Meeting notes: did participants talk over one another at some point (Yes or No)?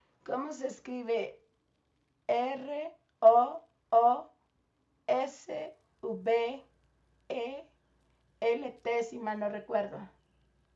No